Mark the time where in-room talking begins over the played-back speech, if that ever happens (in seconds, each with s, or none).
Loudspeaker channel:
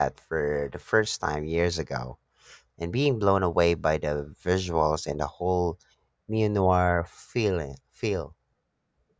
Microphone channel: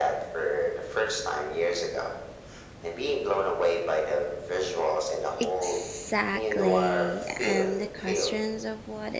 5.4 s